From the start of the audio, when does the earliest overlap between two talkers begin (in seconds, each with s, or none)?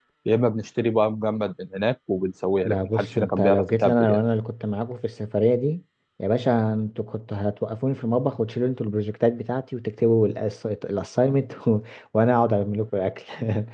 2.6 s